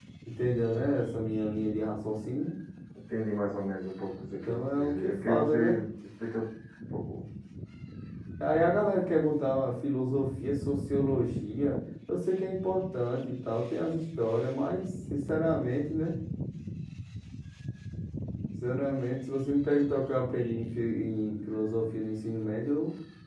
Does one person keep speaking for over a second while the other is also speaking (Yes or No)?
Yes